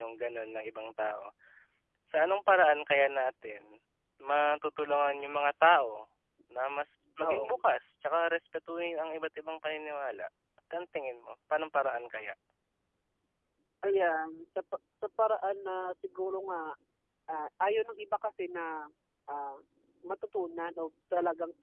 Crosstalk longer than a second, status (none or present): none